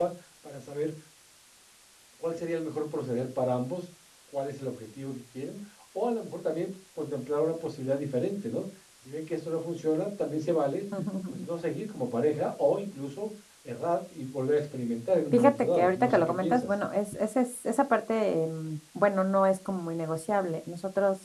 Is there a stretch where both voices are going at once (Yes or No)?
Yes